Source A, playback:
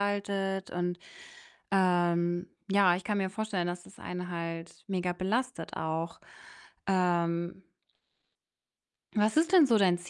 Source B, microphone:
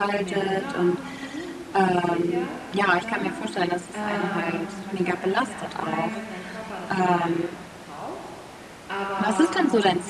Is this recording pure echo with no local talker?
No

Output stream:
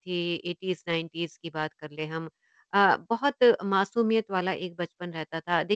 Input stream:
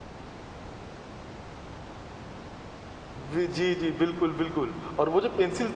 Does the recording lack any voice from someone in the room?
No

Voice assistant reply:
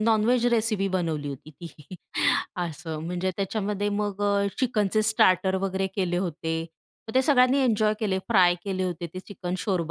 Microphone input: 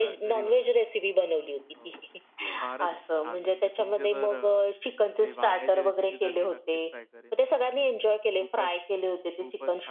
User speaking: Yes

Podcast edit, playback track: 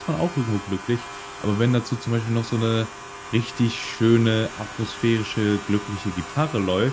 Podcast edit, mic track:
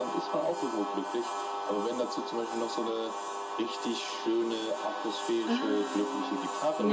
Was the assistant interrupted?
Yes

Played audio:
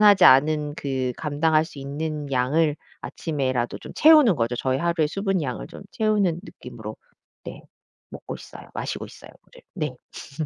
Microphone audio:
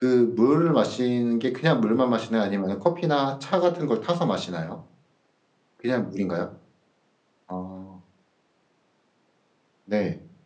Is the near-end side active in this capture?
Yes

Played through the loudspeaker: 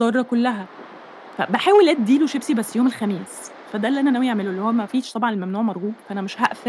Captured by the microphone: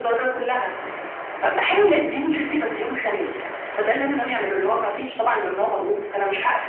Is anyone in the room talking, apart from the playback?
No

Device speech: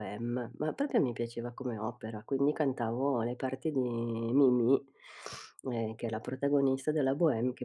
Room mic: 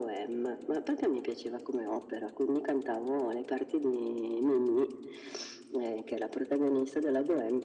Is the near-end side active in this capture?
No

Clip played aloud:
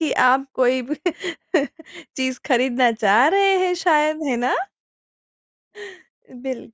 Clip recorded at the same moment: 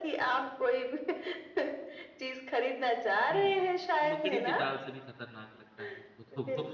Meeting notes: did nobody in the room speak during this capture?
No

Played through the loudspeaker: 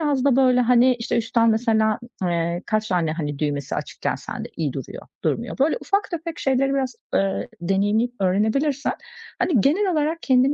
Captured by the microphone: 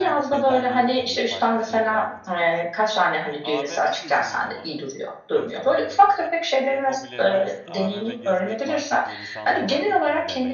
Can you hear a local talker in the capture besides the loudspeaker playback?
Yes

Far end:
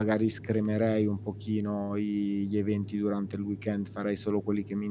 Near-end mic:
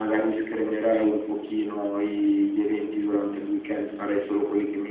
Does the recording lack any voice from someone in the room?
Yes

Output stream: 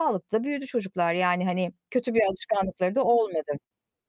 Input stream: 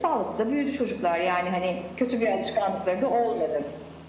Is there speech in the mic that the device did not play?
No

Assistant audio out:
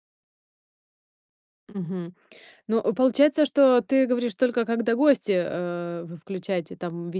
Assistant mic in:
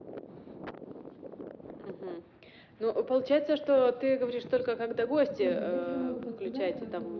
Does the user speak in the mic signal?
Yes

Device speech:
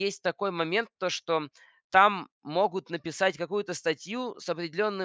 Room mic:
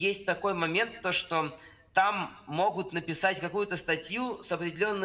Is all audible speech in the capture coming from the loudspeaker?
Yes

